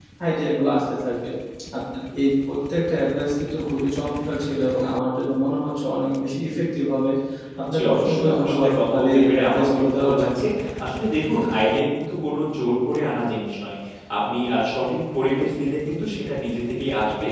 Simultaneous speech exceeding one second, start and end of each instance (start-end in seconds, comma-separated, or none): 7.7-10.4